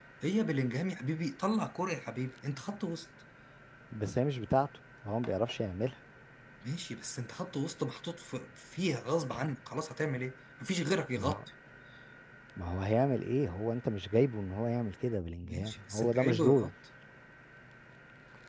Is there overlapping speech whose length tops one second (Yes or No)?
Yes